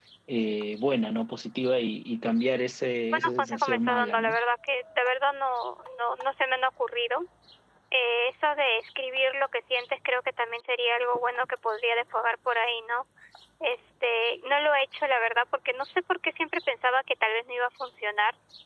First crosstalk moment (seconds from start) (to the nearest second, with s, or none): 3 s